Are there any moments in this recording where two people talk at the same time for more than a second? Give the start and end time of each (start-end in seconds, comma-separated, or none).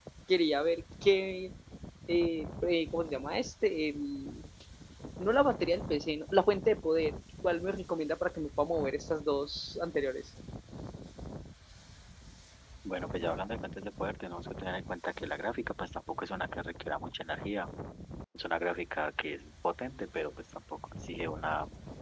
none